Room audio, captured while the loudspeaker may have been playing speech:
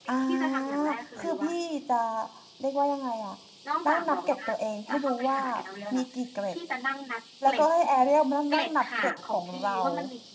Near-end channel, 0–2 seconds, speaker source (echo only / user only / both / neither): both